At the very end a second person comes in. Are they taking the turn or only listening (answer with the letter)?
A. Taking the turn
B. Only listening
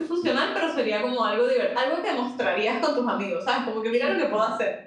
A